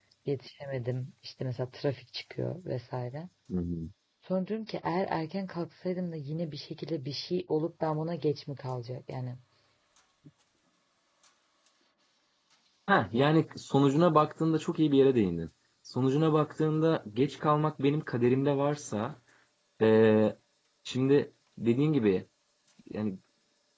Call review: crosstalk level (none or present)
none